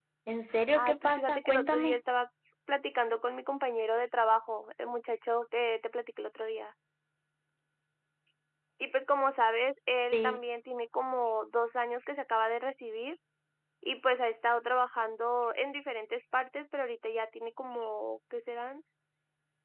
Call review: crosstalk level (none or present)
present